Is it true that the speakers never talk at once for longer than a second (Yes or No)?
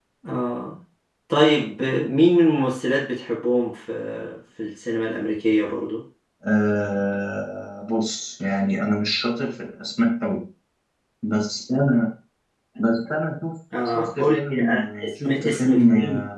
No